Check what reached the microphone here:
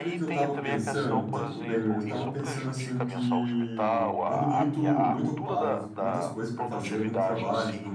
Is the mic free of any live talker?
No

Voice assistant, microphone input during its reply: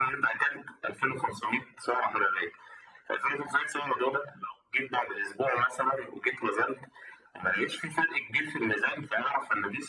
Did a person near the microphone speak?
No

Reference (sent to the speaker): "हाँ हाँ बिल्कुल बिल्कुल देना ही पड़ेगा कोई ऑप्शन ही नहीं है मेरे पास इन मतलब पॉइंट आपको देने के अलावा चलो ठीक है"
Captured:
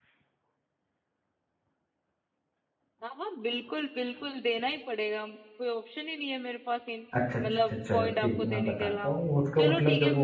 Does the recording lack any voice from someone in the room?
No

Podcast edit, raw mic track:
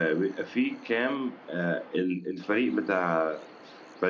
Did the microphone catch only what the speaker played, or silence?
Yes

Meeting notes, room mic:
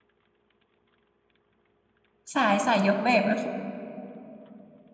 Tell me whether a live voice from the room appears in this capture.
Yes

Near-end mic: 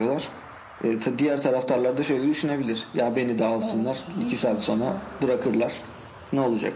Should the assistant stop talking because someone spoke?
Yes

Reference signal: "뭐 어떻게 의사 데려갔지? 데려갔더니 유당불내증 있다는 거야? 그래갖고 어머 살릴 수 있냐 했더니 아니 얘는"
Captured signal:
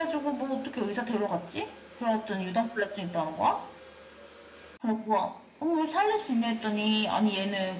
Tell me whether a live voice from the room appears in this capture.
No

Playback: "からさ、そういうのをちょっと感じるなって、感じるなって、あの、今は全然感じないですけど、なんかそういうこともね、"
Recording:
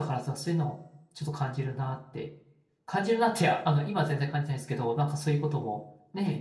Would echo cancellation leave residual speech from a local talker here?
No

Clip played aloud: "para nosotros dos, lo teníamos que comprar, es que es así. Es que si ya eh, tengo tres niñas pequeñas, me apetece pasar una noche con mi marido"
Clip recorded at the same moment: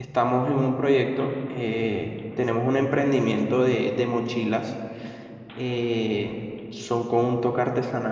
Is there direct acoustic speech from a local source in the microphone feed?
Yes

